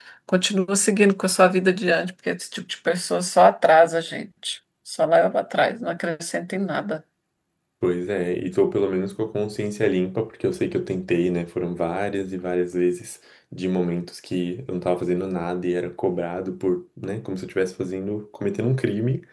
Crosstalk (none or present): none